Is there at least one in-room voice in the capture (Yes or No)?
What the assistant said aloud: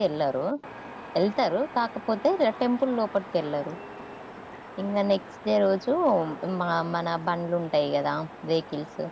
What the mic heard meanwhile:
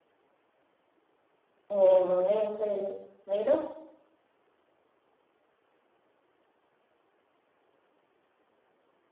Yes